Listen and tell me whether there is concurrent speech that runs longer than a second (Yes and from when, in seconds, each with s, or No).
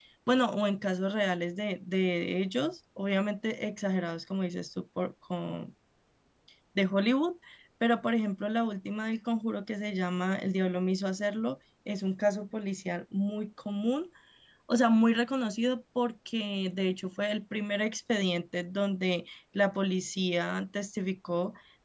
No